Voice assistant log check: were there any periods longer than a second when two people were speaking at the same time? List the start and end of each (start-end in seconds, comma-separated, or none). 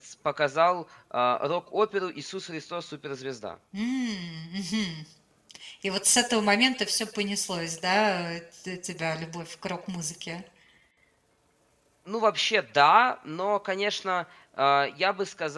none